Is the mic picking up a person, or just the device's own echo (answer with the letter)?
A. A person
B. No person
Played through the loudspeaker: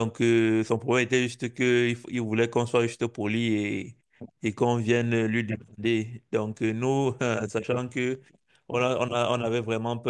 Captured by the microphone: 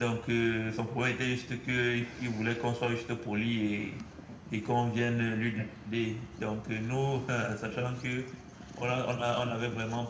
B